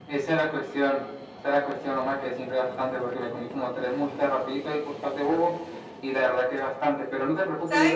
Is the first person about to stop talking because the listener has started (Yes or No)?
Yes